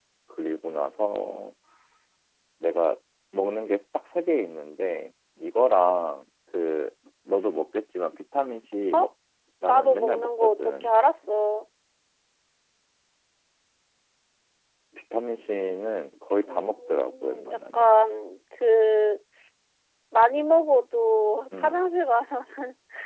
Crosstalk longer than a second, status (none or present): present